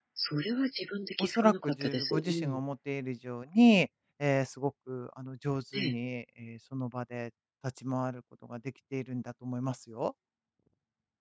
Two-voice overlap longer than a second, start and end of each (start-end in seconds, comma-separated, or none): 1.2-2.6